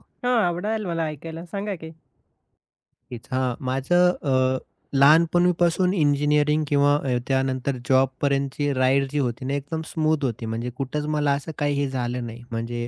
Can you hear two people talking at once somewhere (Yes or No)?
No